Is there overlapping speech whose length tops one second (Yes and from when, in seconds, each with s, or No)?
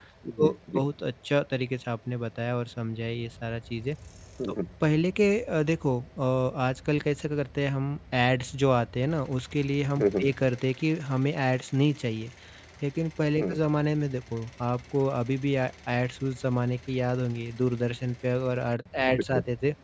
No